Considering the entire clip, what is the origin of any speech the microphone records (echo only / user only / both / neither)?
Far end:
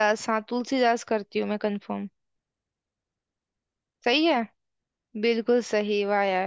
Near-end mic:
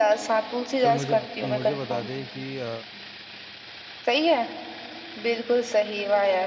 both